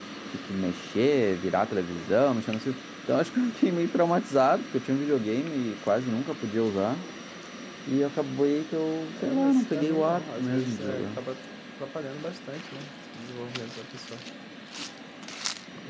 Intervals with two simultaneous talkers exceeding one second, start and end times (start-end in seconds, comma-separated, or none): 9.2-11.2